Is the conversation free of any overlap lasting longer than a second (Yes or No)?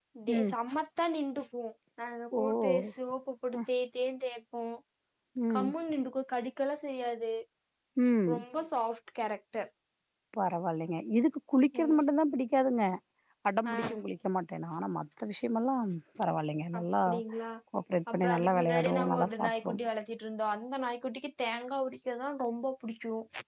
No